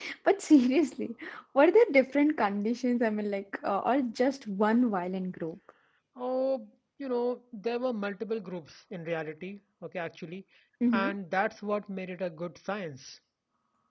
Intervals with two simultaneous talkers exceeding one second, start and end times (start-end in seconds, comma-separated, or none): none